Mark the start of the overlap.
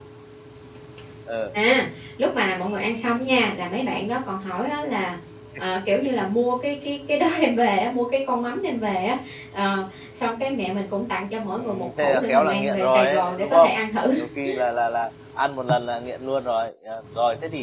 11 s

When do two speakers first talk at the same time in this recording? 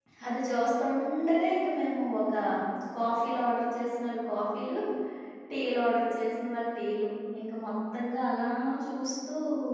none

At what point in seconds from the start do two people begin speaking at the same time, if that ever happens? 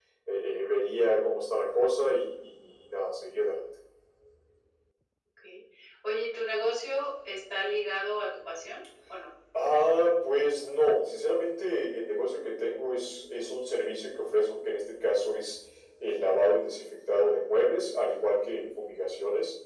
none

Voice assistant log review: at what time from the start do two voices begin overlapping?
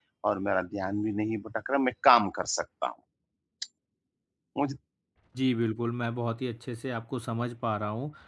none

